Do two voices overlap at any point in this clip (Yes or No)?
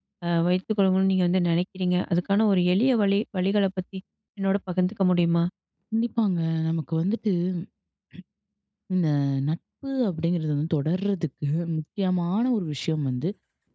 No